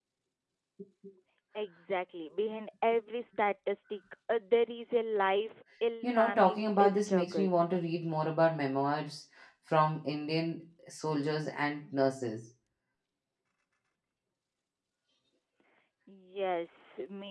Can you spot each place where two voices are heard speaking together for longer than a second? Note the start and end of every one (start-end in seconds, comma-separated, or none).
6.0-7.5